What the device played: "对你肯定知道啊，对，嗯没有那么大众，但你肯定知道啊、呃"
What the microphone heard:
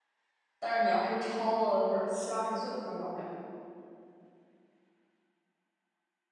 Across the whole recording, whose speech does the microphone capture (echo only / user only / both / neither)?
user only